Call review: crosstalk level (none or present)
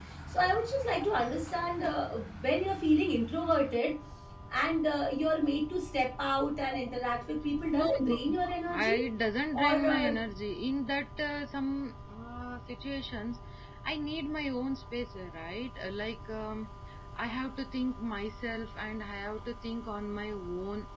present